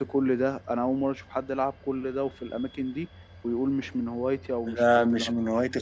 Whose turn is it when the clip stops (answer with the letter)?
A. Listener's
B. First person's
A